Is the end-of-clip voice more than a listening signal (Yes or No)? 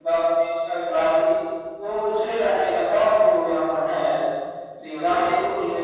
No